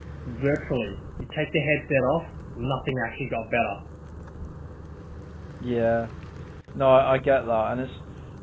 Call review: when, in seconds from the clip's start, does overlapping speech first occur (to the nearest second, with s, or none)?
none